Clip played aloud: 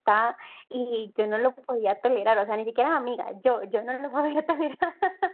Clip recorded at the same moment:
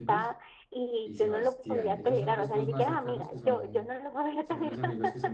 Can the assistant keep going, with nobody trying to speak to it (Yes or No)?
No